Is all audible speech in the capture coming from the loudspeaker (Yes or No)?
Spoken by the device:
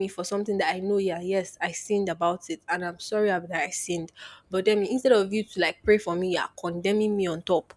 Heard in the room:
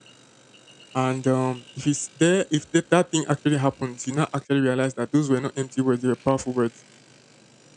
No